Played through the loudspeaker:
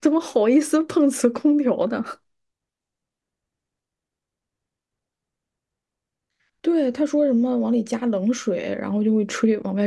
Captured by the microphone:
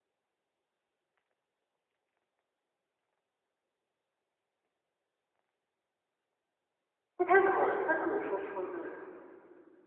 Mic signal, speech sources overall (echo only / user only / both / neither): user only